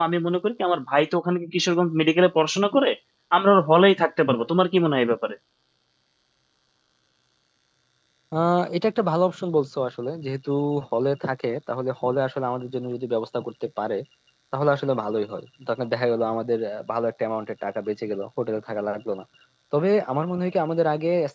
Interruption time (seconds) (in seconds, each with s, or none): none